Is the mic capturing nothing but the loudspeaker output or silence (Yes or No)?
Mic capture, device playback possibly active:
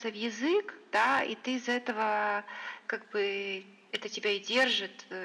Yes